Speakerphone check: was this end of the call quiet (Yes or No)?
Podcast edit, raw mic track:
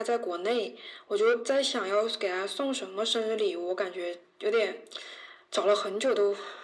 Yes